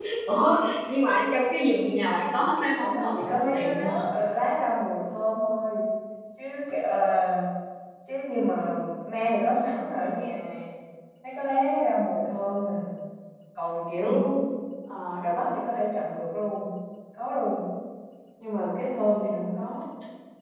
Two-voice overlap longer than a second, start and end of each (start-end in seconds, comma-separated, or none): 2.7-4.1